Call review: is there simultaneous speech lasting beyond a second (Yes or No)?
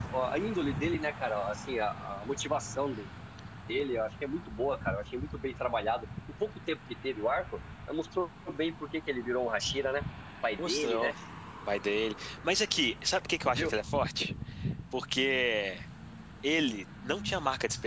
No